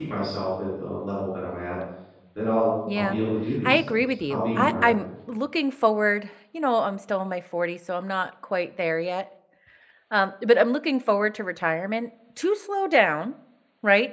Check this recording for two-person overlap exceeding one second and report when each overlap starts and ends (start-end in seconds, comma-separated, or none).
3.6-5.0